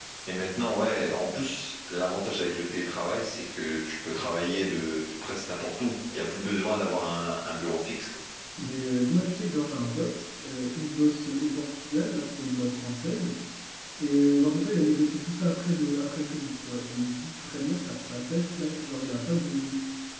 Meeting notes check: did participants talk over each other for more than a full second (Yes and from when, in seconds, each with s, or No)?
No